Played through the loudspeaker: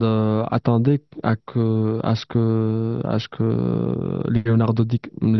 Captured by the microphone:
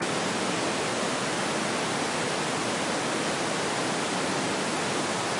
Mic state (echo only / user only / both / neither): neither